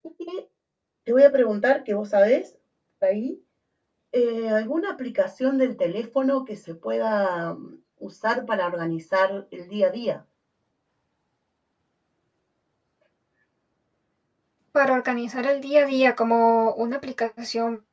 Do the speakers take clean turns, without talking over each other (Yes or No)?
Yes